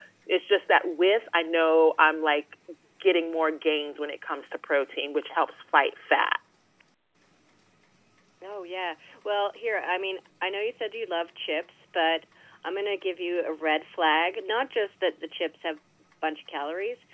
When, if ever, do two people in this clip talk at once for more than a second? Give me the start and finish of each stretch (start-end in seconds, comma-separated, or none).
none